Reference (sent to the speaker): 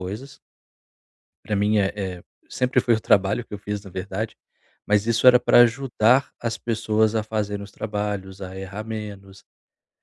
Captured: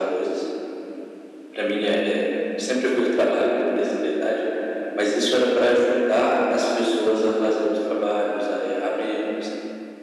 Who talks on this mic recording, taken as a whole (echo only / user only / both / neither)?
echo only